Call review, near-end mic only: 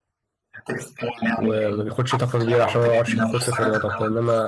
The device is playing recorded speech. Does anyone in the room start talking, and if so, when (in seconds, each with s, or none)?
1.4 s